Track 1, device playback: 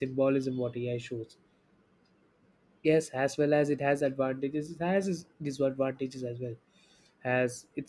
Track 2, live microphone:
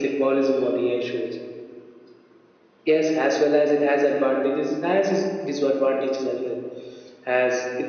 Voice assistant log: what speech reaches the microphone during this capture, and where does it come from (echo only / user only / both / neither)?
echo only